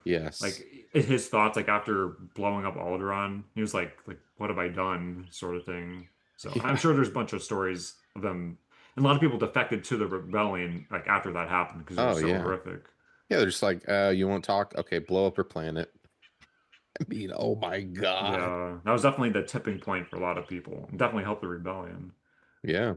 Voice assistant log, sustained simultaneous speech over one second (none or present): none